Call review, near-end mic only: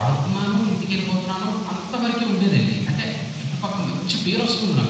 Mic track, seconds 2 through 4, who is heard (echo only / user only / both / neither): echo only